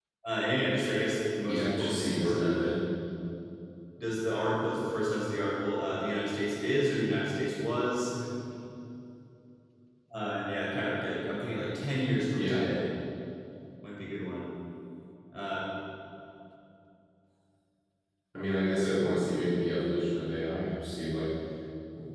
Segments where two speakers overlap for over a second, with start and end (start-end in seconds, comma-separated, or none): 1.5-2.7